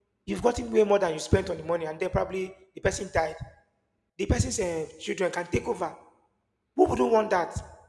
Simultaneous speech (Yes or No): No